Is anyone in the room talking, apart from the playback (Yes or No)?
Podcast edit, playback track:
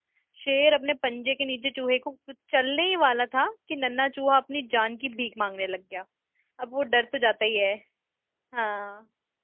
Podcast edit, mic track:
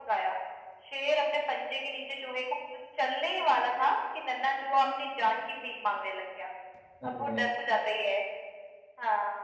Yes